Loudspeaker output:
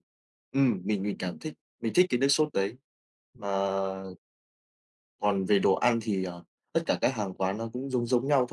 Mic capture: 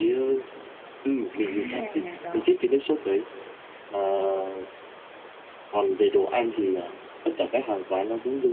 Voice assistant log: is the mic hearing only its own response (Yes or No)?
No